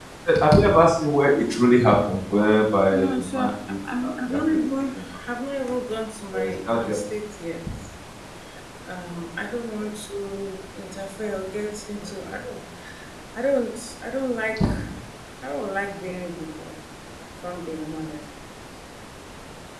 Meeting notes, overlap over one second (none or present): present